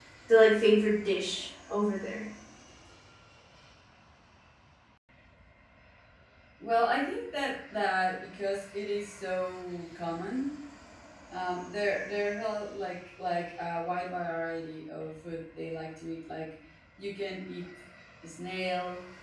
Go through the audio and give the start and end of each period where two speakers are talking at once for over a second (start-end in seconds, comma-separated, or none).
none